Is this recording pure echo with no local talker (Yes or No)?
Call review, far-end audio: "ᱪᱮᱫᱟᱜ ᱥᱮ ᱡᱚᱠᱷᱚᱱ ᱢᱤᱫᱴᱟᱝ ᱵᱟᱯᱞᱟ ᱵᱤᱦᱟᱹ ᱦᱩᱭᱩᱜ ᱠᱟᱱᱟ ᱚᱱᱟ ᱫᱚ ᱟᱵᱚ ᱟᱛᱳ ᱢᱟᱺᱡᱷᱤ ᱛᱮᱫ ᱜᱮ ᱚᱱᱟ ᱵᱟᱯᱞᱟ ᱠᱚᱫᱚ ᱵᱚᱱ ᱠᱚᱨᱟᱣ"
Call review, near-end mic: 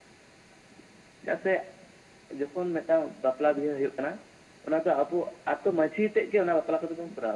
Yes